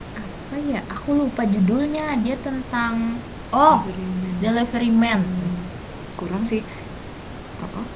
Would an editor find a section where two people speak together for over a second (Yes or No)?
No